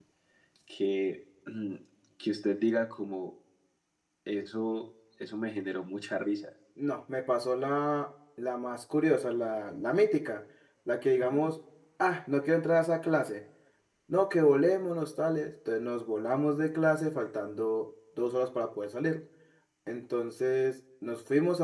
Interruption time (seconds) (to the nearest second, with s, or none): none